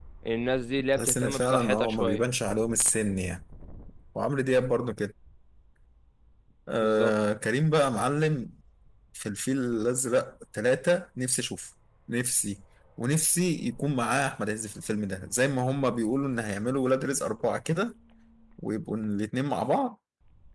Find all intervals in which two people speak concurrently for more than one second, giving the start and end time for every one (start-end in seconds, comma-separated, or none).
1.0-2.2